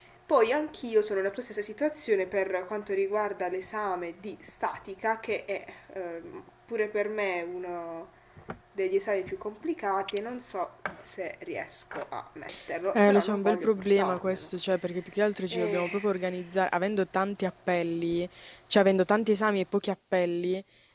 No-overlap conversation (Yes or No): No